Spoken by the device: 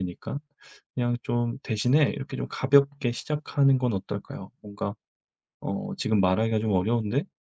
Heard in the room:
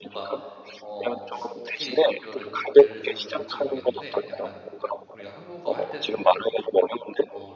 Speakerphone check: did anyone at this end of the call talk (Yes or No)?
Yes